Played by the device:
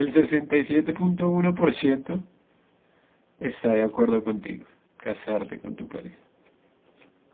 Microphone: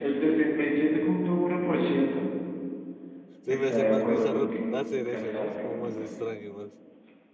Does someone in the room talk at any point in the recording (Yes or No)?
Yes